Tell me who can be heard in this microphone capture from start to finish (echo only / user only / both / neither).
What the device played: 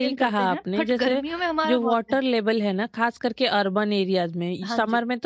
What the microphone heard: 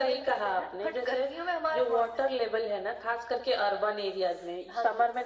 echo only